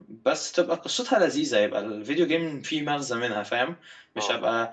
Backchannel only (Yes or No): Yes